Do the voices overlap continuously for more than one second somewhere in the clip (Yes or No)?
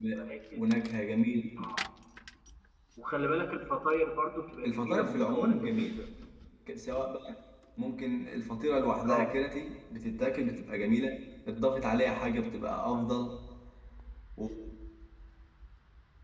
Yes